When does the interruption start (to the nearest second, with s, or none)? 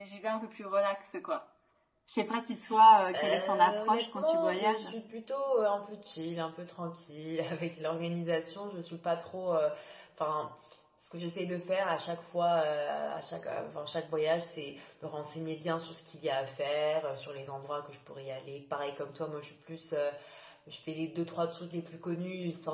3 s